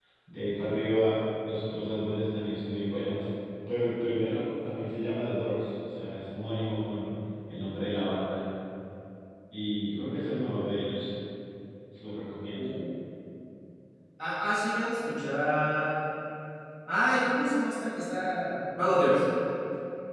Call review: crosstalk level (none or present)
none